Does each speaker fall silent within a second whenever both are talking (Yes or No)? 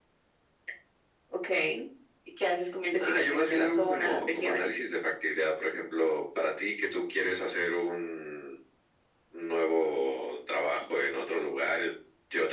No